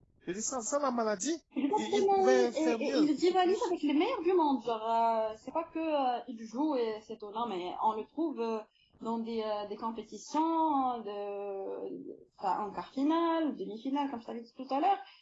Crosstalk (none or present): present